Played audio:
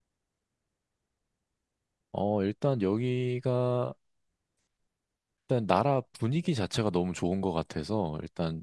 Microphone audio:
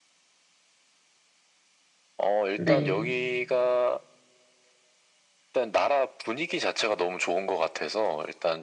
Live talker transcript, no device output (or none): 네,